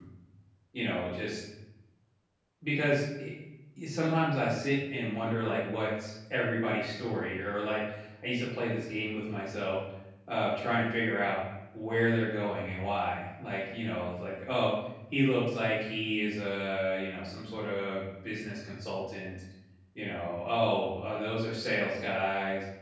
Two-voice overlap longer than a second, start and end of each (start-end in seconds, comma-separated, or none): none